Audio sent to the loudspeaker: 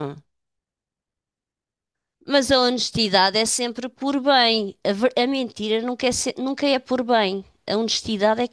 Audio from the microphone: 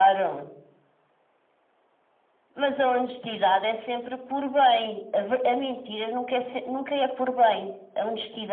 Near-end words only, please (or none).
none